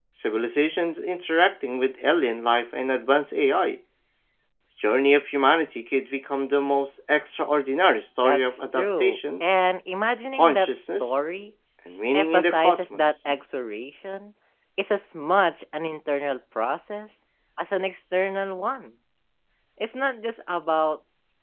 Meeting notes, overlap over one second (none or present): present